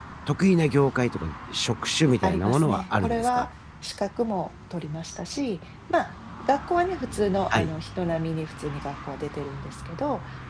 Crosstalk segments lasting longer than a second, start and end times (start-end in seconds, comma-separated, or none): 2.2-3.5